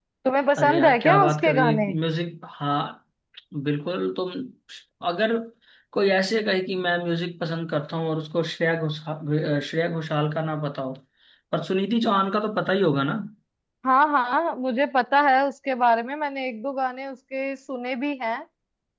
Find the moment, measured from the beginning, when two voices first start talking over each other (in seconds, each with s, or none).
0.6 s